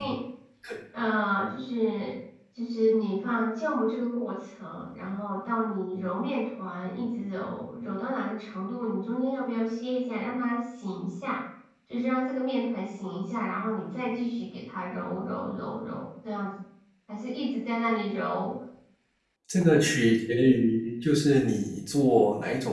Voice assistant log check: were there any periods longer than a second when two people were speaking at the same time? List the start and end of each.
none

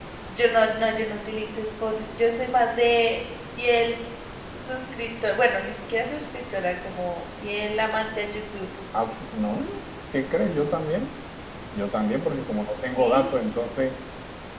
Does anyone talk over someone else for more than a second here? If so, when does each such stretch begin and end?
none

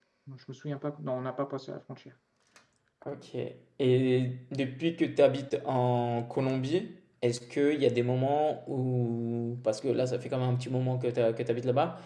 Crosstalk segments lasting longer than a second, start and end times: none

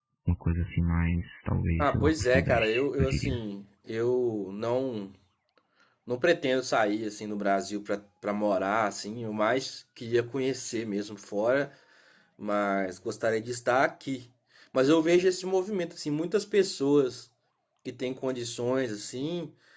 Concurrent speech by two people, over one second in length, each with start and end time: 1.8-3.4

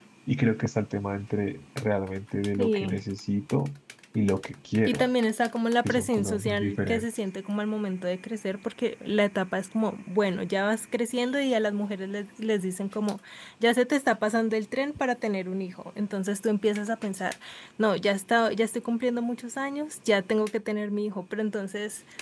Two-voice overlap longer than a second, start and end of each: 5.8-7.0

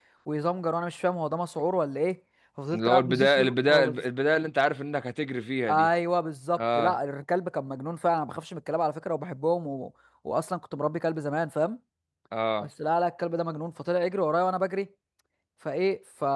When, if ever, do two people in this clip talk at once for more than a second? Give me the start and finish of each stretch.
2.7-4.0

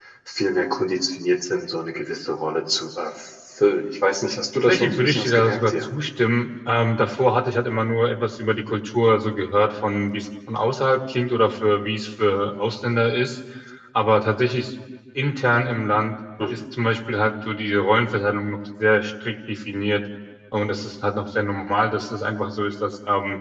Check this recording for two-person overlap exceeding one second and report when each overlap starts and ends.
4.7-5.9

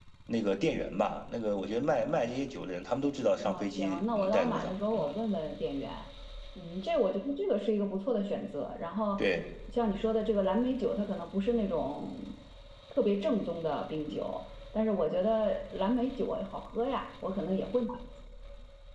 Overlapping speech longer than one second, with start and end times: 3.4-5.2

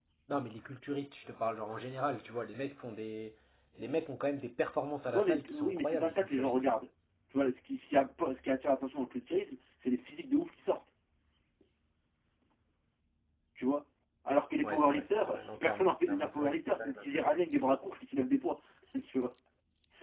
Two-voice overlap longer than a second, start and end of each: 5.1-6.5, 14.6-16.6

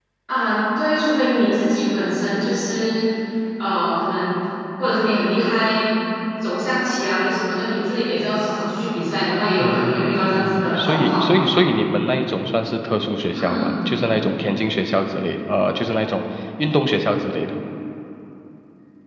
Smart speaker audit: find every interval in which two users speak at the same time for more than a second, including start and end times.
9.6-11.4

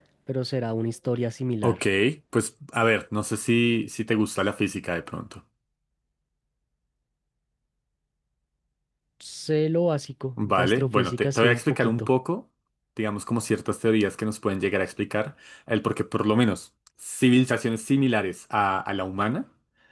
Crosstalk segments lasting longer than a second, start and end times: 10.4-12.1

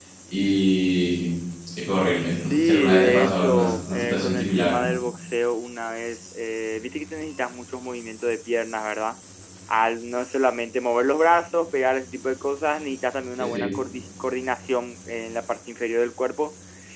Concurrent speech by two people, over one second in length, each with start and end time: 2.3-4.8

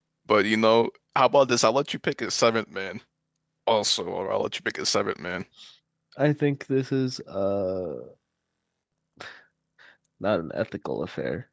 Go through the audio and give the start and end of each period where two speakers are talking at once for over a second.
none

